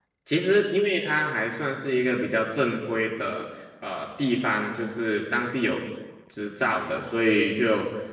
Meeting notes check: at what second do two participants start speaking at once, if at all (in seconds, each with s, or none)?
none